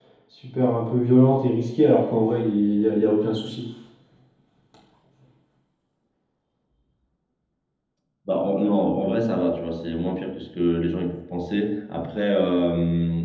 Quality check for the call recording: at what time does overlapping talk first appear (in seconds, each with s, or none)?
none